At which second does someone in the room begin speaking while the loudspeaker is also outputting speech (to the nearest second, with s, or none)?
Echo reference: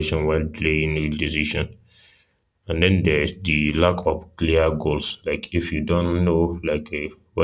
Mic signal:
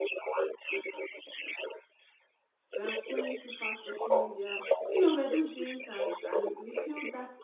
3 s